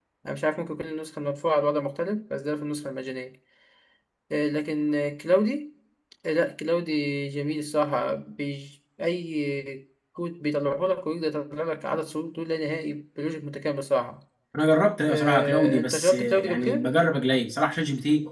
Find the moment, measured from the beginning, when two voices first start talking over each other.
15.1 s

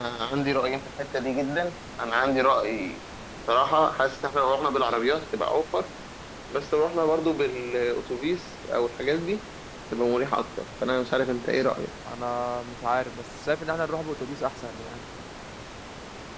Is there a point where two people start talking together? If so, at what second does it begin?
none

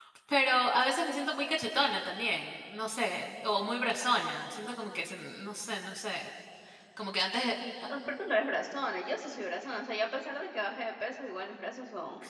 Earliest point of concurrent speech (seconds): none

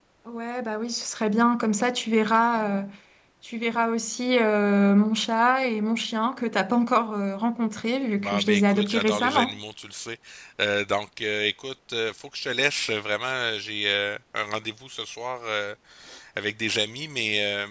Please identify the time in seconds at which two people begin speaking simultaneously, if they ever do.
8.2 s

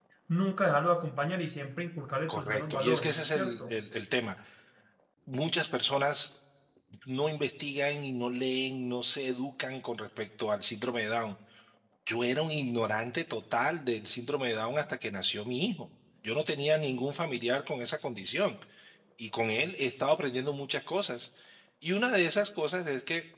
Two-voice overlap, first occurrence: 2.3 s

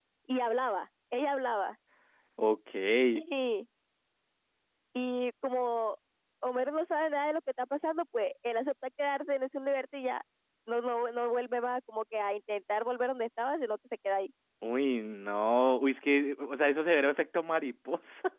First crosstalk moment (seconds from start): none

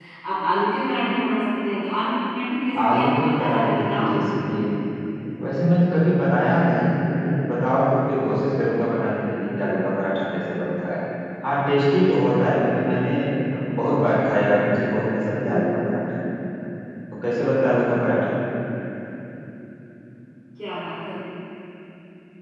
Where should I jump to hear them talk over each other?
2.8 s

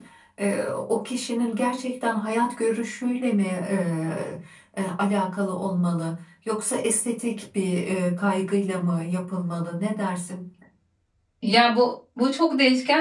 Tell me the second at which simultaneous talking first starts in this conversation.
none

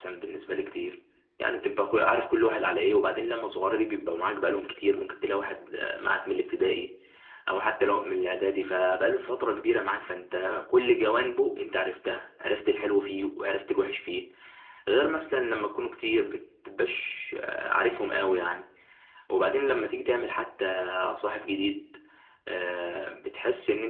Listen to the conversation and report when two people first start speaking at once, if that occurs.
none

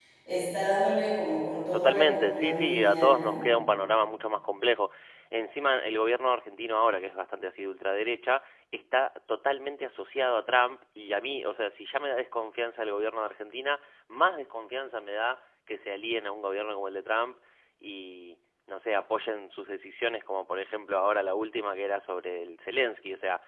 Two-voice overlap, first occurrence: 1.7 s

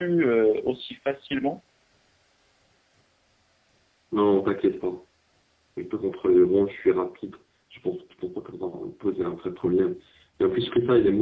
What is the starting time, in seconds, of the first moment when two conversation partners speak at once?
none

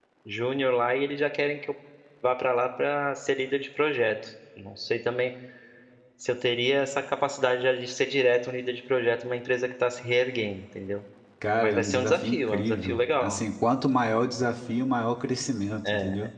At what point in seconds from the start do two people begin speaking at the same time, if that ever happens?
11.6 s

